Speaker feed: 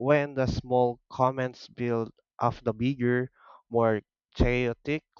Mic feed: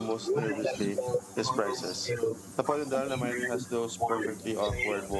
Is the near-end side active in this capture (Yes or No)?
Yes